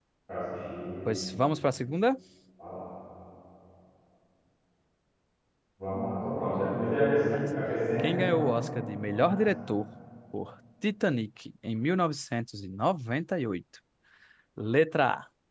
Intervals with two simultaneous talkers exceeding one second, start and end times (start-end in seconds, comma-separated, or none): none